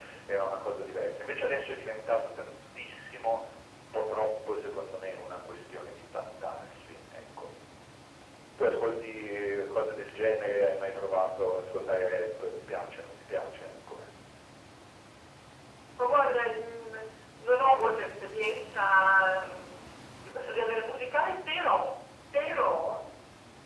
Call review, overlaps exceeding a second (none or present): none